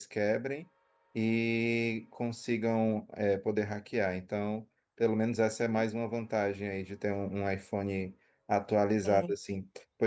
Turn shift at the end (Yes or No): No